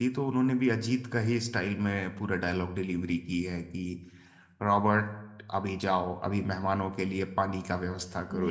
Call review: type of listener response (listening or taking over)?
taking over